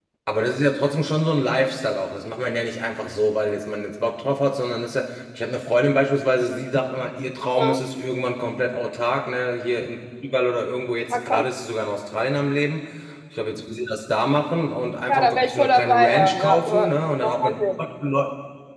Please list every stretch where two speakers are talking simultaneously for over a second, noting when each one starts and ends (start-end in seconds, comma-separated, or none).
15.1-17.6